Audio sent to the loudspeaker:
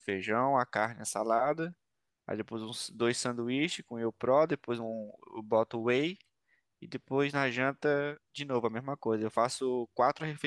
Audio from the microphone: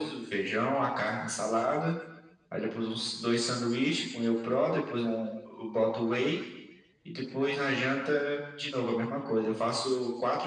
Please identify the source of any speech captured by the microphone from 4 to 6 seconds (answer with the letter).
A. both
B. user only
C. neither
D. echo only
D